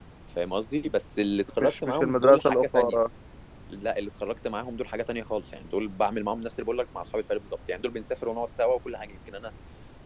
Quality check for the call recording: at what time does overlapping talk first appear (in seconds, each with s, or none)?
1.6 s